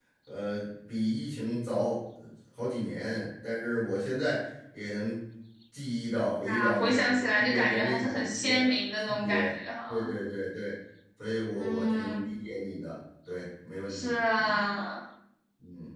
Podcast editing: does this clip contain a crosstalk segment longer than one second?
Yes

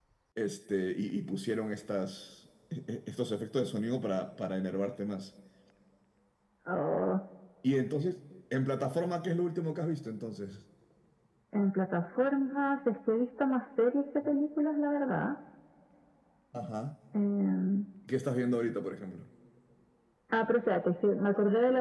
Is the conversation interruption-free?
Yes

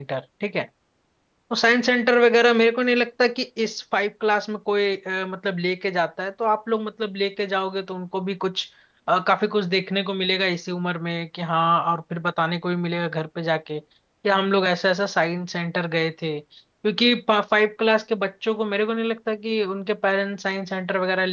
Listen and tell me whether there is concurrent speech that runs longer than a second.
No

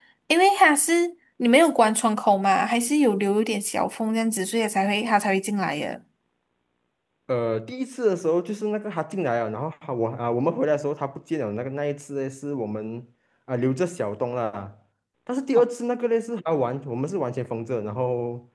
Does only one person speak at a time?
Yes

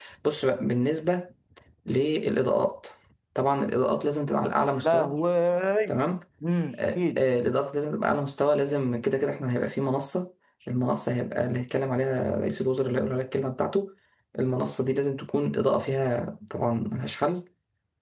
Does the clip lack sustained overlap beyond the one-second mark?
Yes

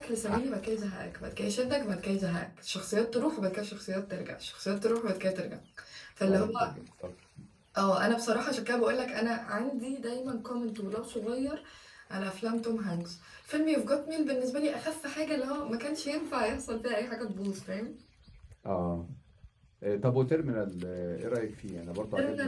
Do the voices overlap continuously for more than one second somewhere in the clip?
No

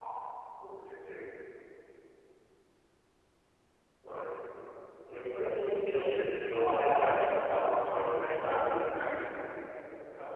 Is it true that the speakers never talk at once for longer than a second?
No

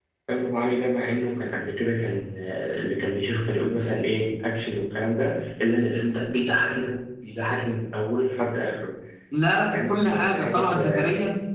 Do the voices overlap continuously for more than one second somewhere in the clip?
Yes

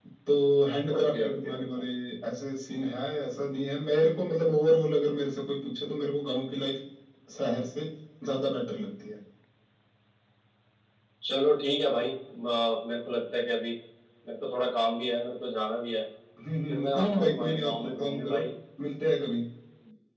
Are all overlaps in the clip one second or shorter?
No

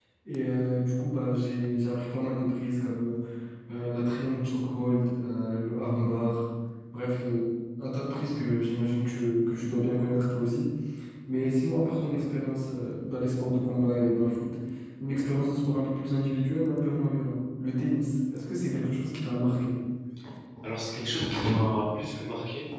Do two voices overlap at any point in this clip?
No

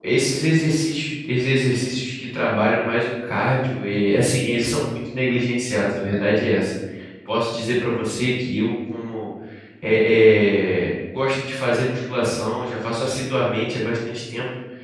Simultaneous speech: No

